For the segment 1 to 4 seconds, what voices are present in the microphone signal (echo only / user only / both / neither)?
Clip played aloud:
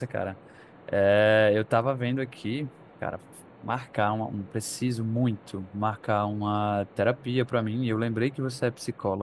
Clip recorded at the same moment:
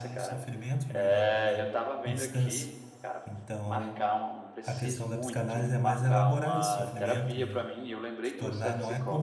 both